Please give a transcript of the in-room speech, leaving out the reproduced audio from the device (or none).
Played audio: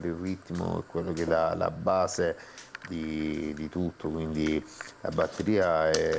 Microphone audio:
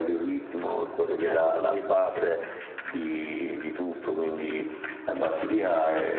certamente.